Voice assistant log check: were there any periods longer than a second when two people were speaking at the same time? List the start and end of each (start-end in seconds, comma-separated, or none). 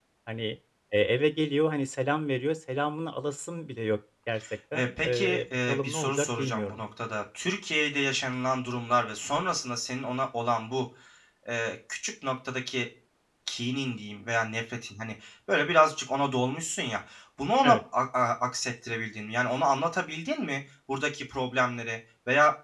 4.7-6.8